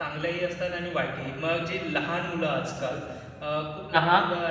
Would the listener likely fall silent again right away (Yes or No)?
Yes